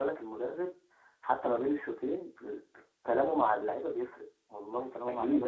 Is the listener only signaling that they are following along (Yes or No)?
No